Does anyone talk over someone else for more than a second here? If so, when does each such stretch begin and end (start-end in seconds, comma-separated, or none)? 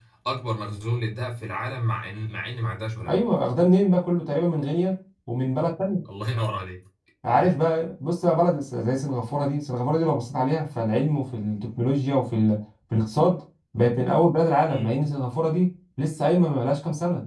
none